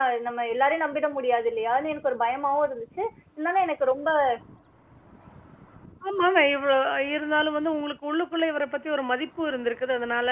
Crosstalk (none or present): none